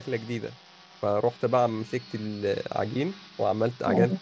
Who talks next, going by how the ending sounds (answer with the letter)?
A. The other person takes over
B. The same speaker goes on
B